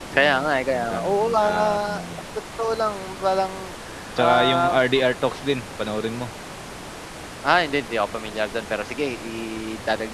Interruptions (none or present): present